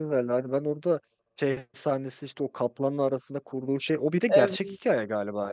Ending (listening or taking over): listening